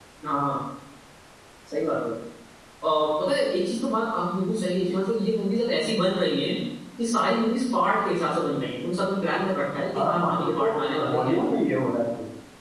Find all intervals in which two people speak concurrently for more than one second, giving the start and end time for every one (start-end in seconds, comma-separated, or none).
10.0-11.4